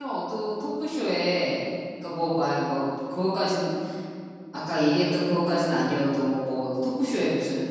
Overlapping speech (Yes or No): No